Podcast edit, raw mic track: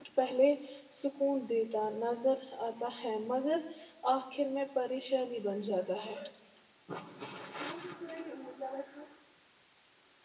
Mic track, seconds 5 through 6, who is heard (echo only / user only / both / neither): user only